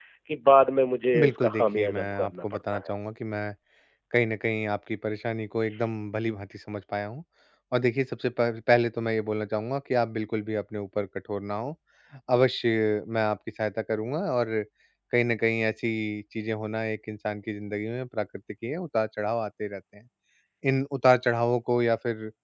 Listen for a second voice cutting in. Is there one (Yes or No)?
Yes